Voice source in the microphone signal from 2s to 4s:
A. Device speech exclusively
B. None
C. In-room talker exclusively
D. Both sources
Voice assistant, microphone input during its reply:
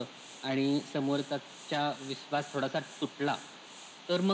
A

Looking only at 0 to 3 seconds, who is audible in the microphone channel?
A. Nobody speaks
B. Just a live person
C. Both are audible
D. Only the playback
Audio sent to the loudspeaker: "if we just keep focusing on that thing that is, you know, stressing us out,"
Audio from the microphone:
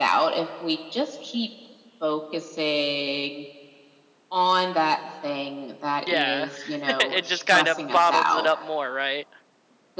D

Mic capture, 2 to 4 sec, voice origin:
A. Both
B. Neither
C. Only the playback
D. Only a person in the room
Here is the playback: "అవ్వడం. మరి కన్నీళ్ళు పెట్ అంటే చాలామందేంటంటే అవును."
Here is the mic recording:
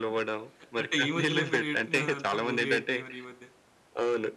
A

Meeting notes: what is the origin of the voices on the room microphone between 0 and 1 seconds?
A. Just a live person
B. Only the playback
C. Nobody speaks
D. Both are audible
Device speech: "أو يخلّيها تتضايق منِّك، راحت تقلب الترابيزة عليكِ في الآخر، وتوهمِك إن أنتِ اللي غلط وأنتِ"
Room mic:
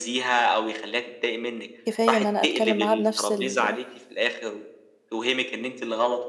B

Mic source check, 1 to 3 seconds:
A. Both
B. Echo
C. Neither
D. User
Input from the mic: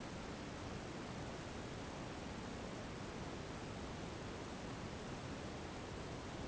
C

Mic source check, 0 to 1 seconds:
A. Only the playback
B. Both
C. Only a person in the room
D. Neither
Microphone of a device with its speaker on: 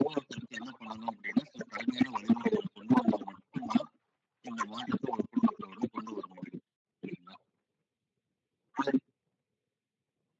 A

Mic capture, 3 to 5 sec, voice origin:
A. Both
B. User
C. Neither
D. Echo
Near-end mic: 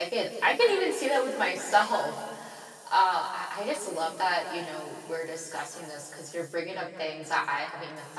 B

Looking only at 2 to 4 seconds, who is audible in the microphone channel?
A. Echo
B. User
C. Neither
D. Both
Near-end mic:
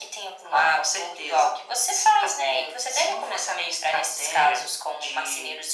A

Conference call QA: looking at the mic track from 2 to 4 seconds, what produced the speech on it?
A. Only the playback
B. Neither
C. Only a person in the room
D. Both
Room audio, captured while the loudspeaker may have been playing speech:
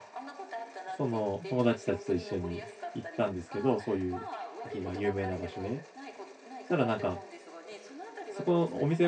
D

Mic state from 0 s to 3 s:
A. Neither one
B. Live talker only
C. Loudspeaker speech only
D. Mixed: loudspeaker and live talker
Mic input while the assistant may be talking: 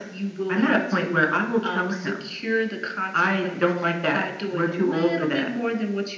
C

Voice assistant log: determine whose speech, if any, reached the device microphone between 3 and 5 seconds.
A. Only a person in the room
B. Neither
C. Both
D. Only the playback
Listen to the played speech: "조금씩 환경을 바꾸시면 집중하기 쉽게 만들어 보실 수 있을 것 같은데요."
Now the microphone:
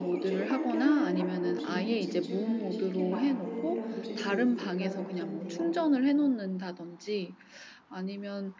C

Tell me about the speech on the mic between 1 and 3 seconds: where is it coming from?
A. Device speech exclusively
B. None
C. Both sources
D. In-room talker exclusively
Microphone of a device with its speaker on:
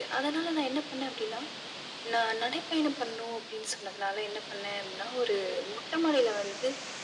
A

